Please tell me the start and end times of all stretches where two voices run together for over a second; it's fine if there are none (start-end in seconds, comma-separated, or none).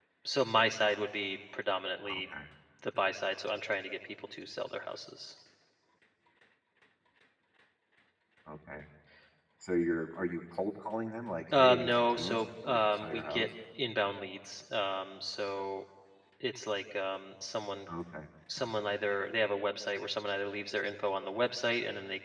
11.6-13.5